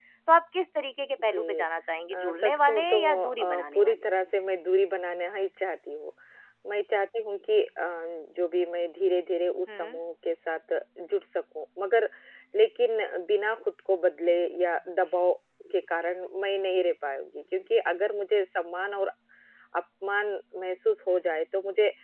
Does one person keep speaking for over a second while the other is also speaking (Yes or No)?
Yes